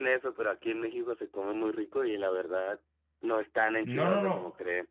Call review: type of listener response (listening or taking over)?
taking over